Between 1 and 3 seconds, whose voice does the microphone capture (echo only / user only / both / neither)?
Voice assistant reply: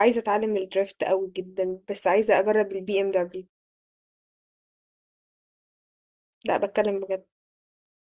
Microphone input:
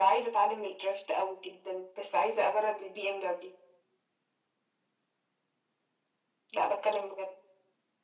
echo only